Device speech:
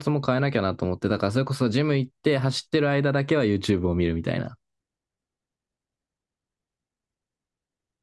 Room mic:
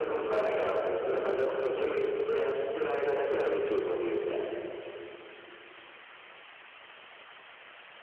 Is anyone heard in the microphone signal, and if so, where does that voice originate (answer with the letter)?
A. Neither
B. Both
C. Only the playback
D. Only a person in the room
C